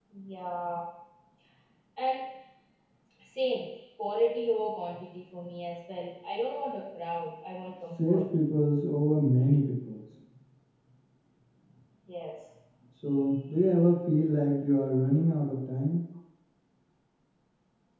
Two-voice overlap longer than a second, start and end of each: none

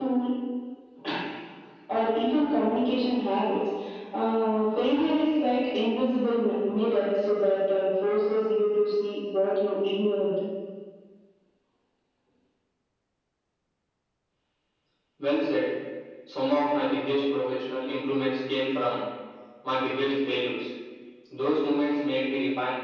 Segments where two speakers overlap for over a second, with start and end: none

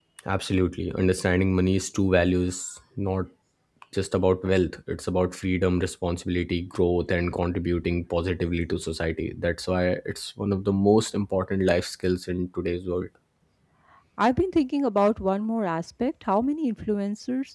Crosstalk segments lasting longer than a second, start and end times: none

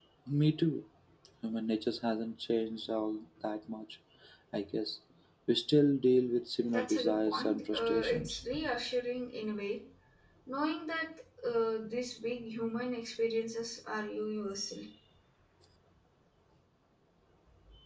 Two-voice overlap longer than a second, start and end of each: 6.6-8.4

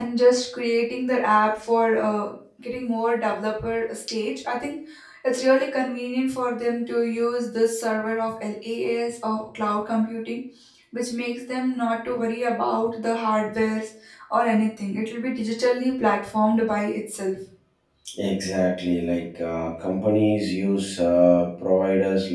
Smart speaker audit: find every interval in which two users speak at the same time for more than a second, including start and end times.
none

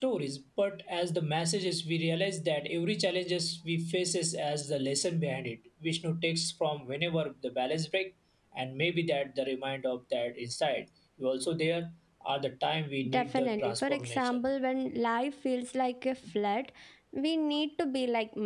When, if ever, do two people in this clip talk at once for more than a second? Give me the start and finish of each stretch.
13.1-14.4

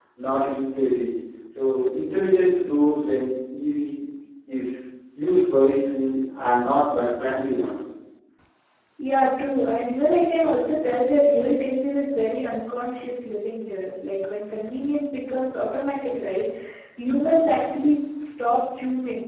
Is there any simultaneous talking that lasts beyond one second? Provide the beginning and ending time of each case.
none

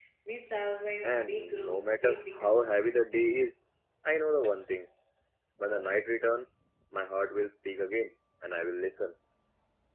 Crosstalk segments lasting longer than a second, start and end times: 1.0-3.2

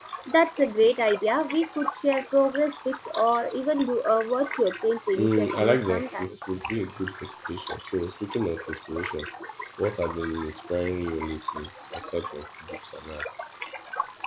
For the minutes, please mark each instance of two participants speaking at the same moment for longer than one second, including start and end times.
5.1-6.4

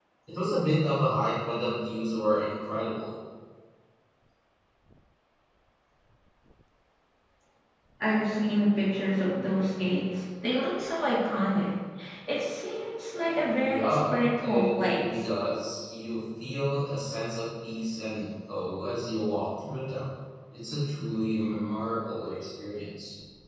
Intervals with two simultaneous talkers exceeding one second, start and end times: 13.6-15.0

